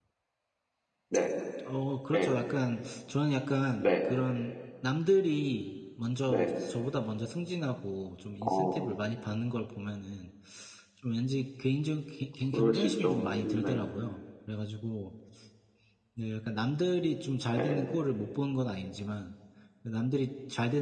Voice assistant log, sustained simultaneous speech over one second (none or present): present